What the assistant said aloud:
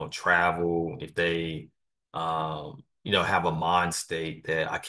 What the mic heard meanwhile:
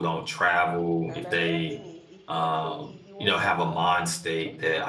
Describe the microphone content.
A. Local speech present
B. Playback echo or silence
A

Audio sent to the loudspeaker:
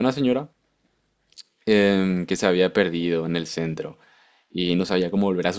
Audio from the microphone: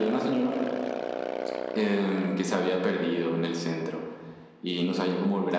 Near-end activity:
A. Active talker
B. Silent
B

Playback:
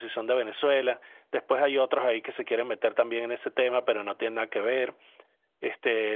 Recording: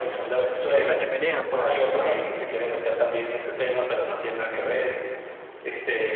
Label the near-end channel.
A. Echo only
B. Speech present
B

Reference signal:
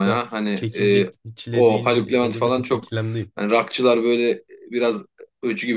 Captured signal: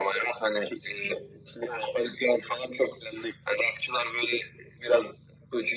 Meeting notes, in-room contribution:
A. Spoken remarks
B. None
B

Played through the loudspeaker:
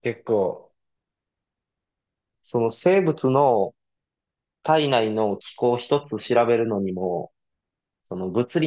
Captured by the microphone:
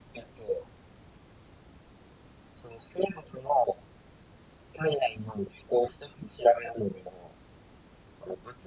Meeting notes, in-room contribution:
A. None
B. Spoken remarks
A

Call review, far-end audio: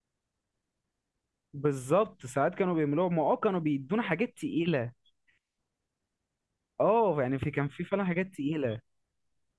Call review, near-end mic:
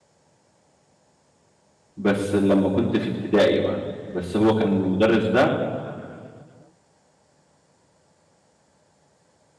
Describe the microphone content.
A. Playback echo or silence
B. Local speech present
B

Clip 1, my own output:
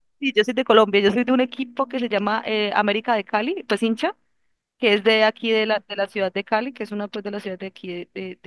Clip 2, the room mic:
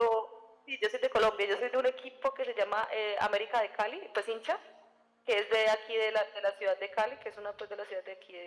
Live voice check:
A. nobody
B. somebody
A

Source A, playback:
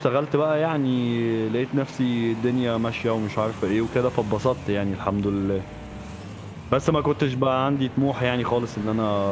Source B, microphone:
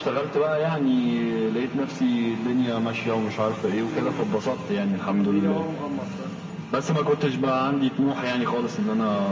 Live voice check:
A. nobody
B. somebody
B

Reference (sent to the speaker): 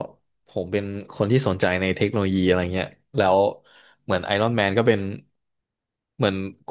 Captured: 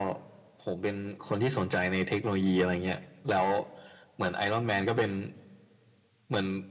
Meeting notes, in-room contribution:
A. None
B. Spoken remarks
A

